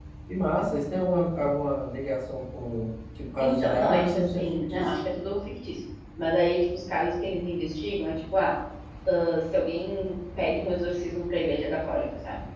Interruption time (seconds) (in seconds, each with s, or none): 3.4 s